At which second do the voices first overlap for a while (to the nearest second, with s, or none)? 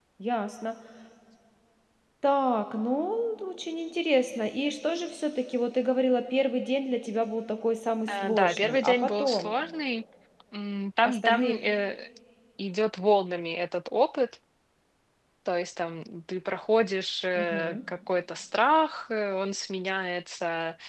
8 s